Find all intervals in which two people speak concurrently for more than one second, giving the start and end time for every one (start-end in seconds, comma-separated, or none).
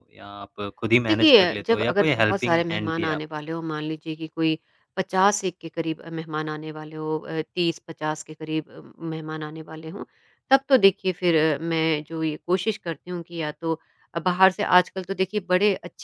1.1-3.2